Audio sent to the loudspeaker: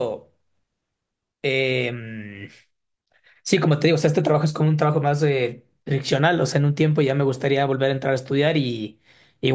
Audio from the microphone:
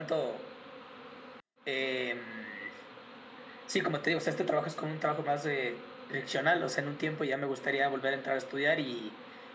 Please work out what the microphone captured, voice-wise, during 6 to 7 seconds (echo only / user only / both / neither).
echo only